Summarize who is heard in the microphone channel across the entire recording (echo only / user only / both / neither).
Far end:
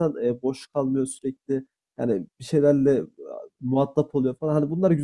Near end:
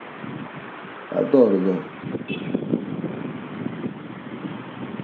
user only